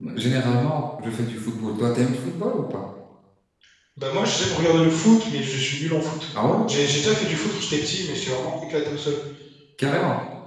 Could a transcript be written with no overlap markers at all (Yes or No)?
Yes